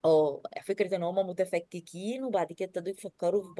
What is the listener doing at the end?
listening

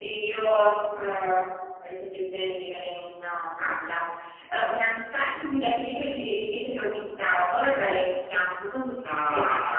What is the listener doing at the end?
taking over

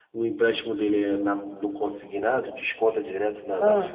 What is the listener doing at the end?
listening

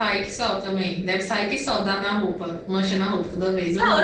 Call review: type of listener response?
taking over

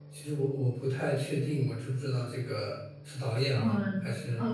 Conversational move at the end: taking over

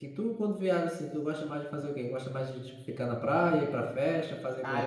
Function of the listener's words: taking over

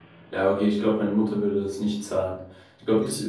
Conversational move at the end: listening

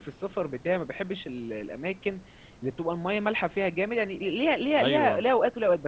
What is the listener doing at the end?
listening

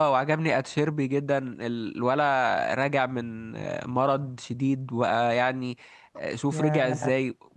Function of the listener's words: listening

